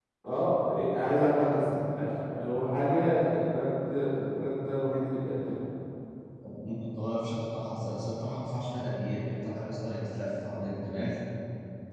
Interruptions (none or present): none